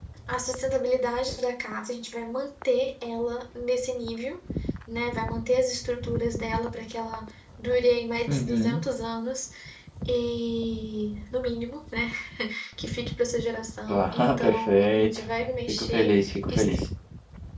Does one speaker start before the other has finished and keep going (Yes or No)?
Yes